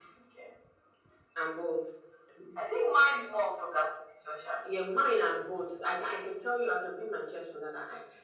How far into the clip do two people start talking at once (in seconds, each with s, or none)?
none